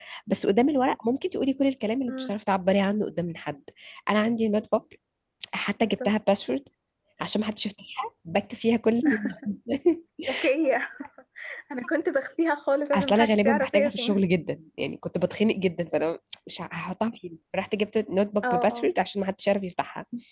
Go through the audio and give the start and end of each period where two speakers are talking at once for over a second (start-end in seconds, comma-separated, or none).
12.9-14.2